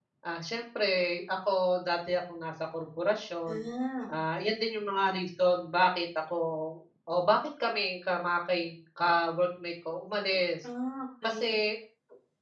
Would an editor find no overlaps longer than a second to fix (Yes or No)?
Yes